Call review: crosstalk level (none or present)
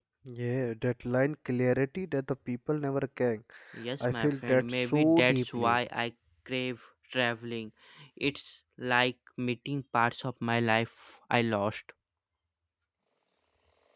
present